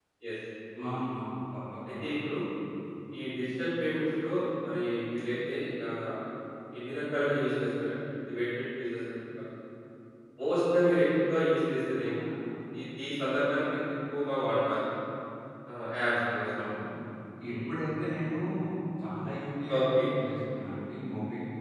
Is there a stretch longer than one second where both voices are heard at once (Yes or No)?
No